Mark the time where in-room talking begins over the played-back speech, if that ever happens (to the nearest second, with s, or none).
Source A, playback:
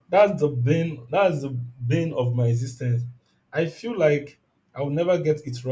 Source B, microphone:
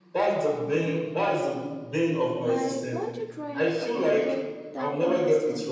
2 s